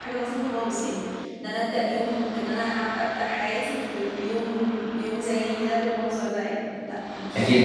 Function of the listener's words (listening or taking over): taking over